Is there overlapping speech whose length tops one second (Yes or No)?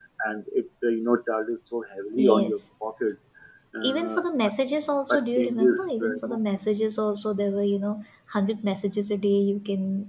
Yes